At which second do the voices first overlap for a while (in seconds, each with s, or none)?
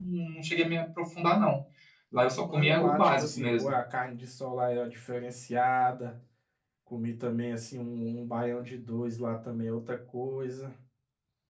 2.4 s